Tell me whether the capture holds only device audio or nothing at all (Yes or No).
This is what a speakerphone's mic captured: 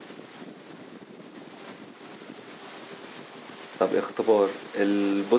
No